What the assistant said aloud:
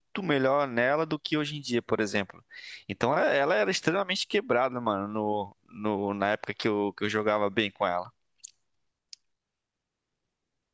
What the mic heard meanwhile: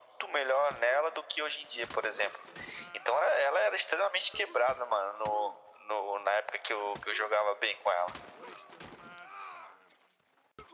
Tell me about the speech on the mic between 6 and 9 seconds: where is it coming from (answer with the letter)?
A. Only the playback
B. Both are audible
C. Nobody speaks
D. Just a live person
A